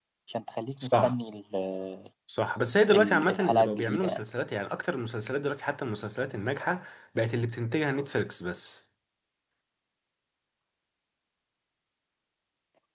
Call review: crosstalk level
present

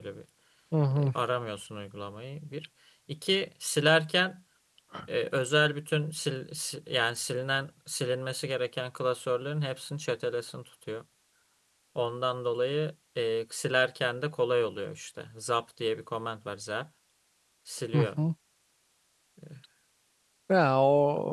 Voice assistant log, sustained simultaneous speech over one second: none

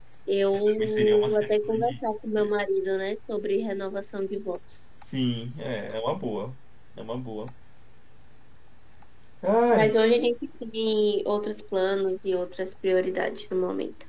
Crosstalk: present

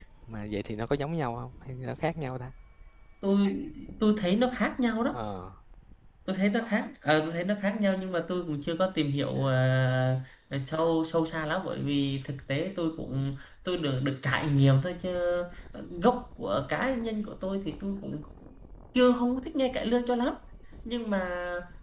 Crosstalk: none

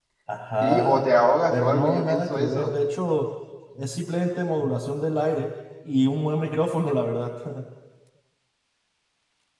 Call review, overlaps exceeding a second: present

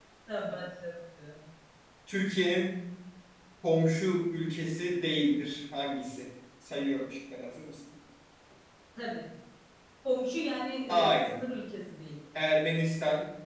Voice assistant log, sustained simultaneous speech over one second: none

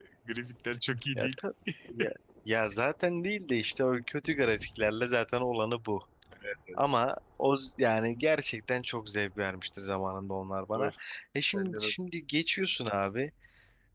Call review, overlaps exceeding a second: none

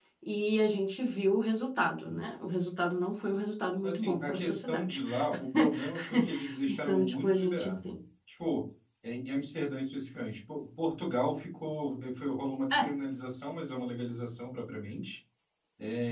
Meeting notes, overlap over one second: present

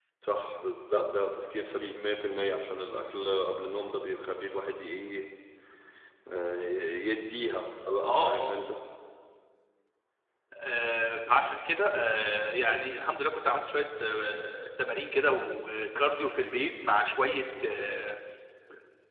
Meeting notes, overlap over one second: none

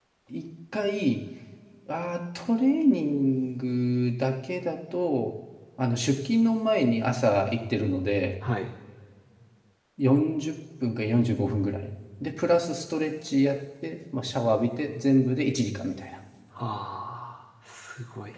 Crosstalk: none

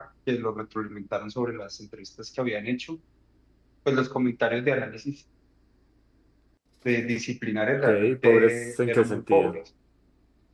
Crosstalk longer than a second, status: present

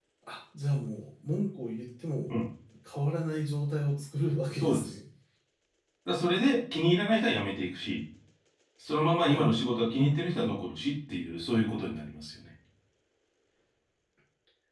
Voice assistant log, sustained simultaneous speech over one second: none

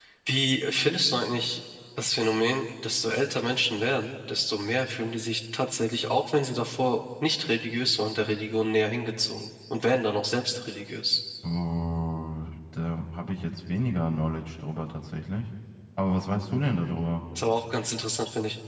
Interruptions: none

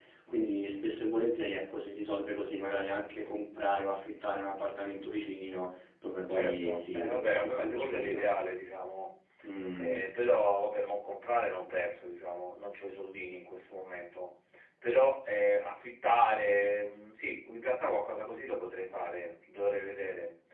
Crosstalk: present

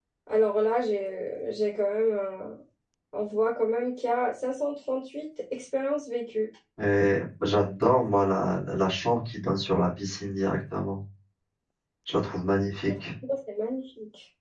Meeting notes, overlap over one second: none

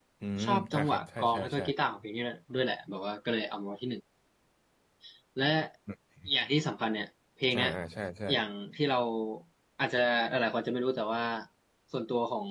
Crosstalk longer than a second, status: present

